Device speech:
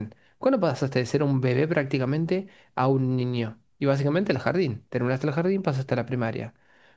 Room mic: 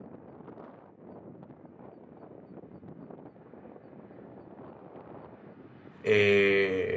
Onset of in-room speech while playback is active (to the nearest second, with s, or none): 6 s